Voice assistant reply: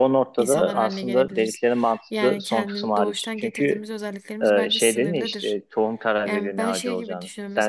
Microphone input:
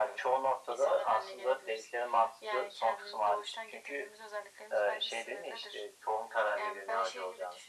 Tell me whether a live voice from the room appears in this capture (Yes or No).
No